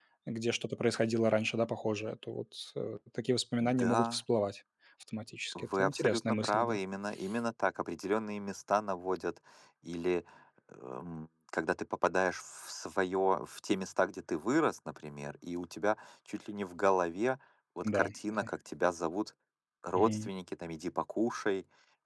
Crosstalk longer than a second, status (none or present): present